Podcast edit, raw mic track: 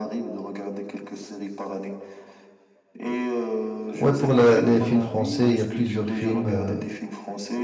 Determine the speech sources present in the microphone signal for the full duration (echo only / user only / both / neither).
both